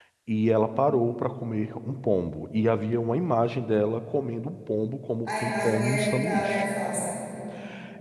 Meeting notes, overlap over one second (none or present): present